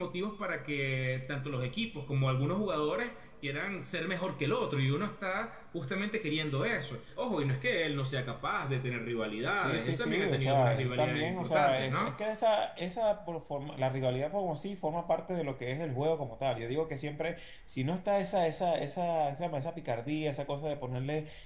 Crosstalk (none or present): present